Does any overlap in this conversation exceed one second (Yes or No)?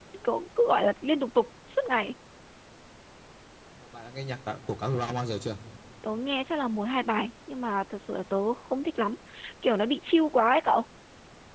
No